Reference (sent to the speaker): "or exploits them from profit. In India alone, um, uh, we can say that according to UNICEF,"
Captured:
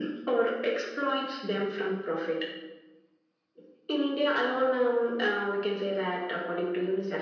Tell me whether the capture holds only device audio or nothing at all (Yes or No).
Yes